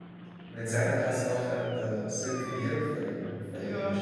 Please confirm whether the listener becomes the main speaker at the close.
No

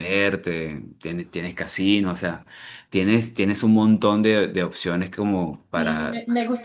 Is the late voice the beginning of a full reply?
Yes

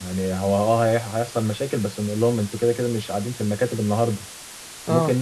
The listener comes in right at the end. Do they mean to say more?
No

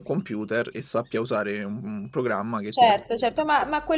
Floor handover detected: Yes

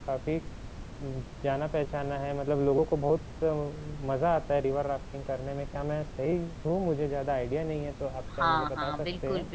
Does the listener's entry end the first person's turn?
Yes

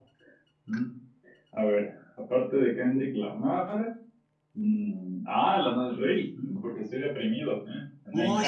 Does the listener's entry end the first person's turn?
Yes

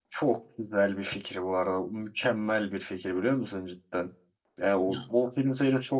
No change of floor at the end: Yes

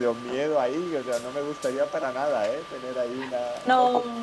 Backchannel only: No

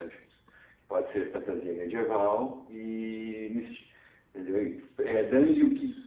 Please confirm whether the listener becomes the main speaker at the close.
No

